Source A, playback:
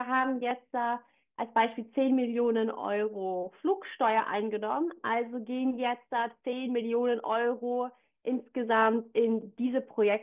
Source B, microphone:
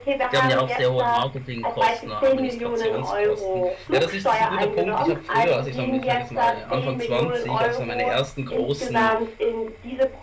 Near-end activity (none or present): present